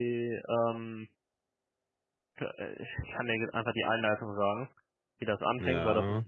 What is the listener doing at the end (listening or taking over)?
listening